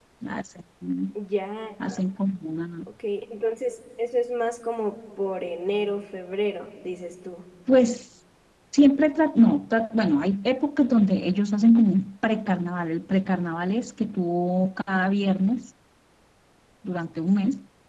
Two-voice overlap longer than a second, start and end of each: none

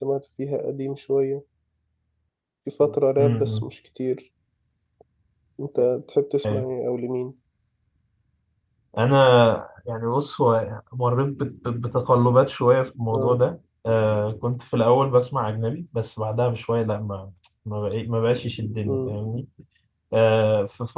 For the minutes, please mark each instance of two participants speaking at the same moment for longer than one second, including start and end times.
none

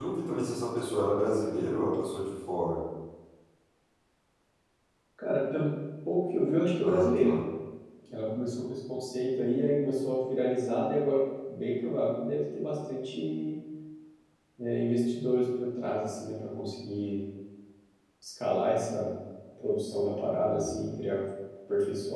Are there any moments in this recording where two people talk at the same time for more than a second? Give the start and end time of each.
none

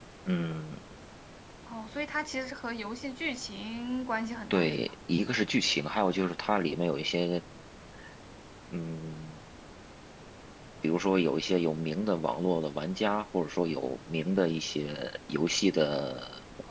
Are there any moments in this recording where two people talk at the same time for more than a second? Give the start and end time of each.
none

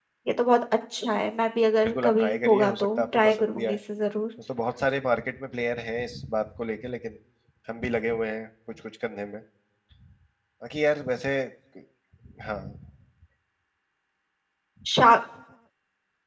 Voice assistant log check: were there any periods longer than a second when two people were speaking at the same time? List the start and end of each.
1.8-3.7

